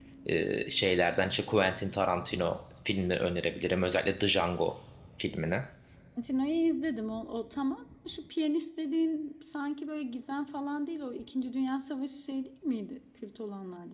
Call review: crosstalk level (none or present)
none